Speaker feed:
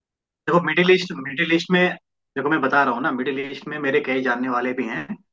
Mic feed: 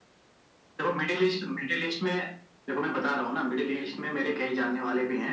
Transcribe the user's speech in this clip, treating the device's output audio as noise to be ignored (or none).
none